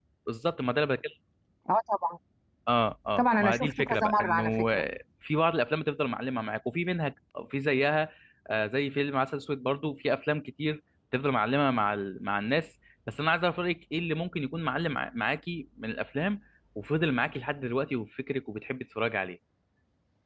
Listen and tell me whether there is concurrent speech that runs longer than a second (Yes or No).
Yes